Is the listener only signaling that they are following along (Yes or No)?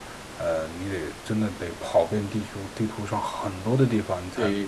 Yes